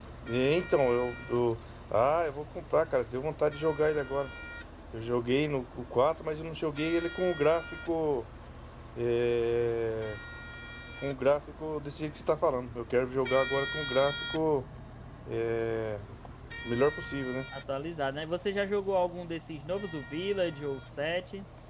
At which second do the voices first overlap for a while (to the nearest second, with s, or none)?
none